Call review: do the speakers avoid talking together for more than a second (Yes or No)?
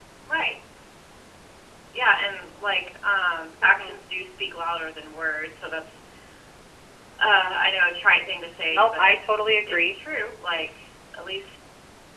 Yes